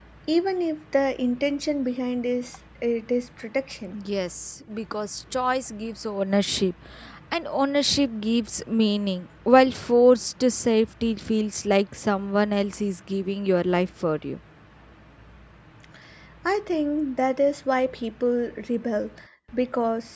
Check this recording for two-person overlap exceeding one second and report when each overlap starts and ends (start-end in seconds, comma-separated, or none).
none